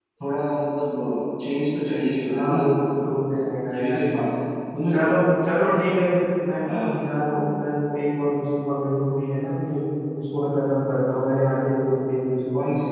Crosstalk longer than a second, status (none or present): none